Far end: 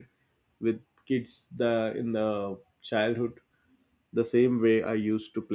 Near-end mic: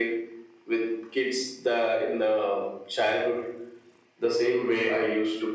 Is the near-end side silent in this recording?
Yes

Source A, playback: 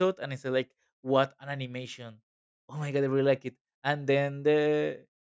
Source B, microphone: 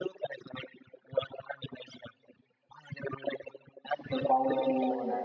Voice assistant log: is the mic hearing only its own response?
No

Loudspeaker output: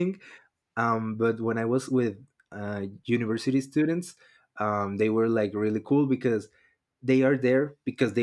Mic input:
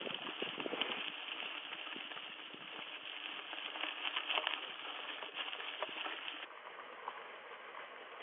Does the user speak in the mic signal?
No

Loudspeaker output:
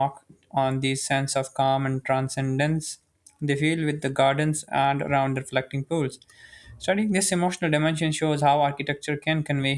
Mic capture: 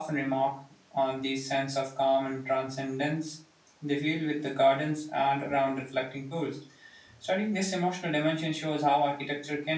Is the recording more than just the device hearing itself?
No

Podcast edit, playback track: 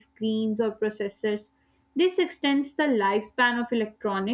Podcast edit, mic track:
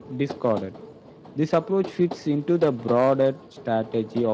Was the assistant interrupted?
Yes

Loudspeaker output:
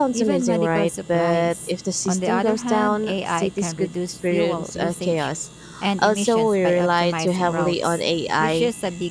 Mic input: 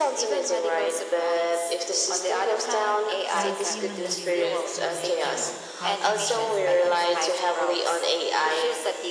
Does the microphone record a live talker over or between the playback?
Yes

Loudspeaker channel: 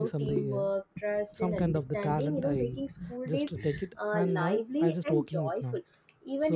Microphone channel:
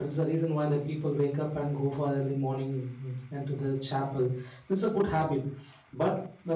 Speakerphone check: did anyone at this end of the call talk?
Yes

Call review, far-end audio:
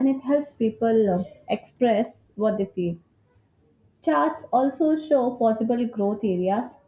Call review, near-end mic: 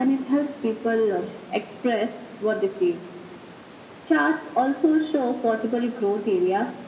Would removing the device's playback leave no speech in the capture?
Yes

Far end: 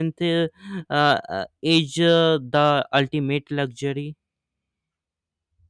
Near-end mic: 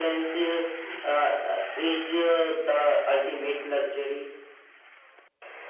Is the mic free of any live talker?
Yes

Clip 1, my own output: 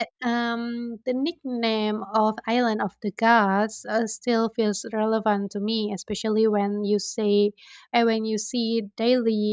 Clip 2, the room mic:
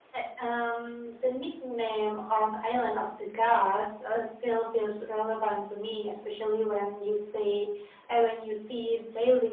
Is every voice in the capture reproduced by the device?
Yes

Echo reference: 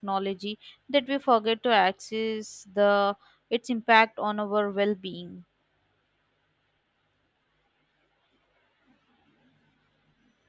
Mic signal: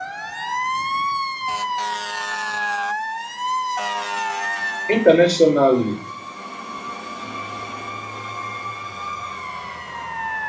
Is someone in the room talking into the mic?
Yes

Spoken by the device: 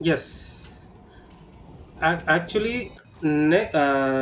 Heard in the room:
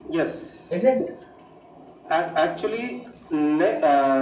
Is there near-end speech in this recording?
Yes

